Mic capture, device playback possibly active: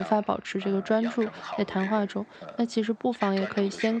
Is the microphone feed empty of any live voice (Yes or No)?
No